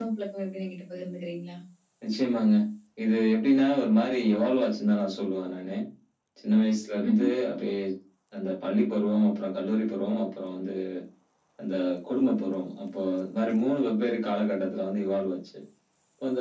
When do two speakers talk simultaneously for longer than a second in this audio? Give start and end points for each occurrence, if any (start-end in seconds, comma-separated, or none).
none